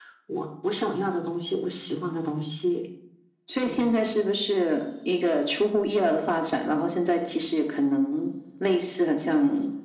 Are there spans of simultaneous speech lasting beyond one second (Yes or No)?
No